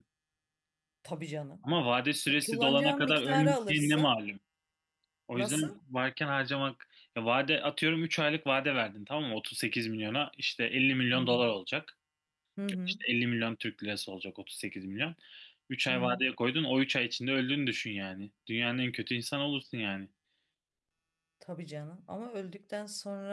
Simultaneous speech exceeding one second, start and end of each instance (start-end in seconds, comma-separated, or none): 2.3-4.1